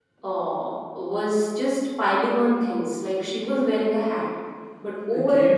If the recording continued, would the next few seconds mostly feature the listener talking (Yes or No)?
No